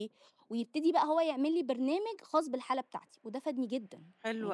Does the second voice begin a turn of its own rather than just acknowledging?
Yes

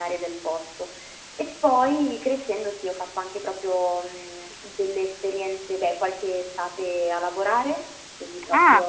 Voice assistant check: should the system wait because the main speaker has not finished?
No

